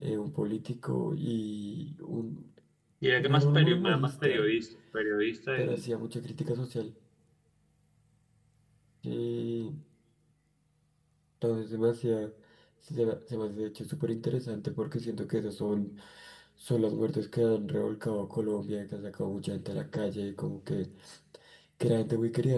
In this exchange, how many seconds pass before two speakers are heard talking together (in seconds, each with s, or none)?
3.2 s